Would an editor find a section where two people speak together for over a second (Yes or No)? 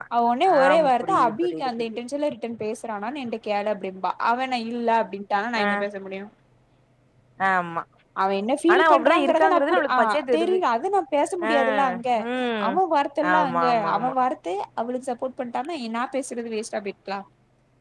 Yes